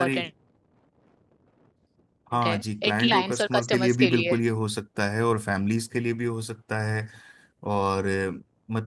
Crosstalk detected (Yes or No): Yes